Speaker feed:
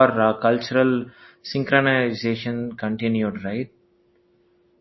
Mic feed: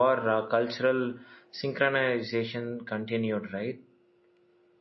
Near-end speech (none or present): none